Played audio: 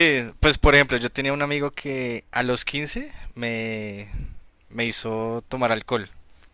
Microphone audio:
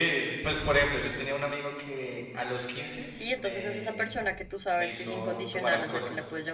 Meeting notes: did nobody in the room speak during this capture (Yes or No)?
No